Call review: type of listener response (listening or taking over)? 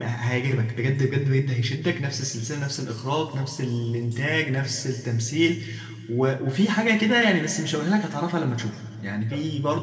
listening